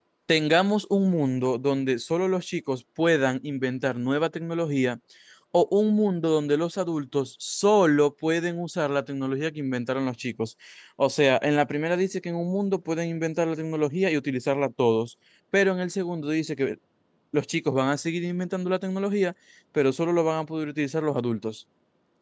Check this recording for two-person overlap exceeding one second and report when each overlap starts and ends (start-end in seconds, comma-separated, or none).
none